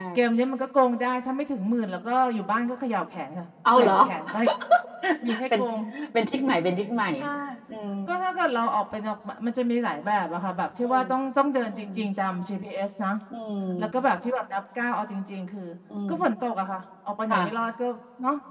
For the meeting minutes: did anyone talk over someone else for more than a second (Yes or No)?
No